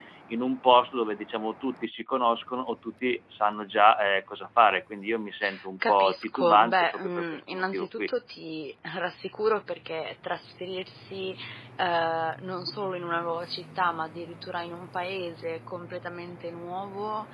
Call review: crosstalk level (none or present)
present